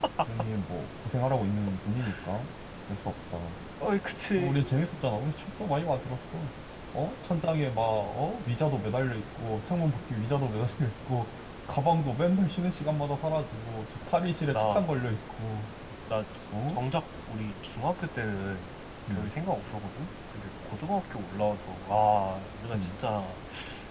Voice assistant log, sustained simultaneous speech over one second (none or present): none